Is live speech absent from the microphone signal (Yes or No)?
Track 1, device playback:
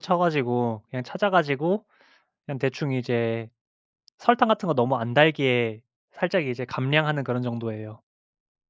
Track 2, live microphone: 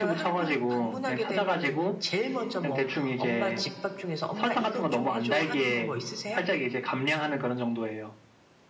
No